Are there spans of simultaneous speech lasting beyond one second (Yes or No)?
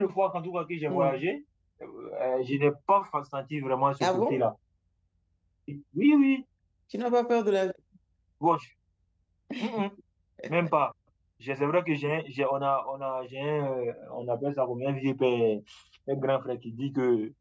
No